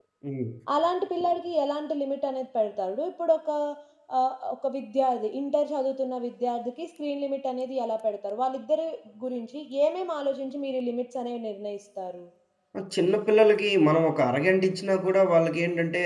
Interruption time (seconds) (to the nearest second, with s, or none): none